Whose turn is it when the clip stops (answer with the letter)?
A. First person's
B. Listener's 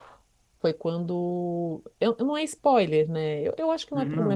A